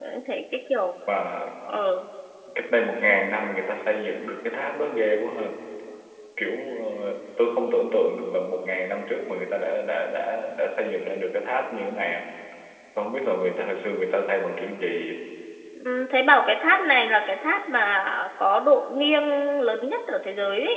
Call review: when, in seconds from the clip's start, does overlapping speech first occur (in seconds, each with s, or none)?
none